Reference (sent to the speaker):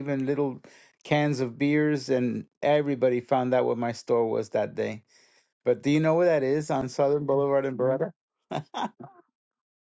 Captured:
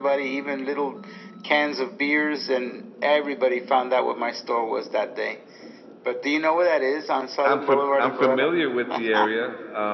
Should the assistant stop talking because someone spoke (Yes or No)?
Yes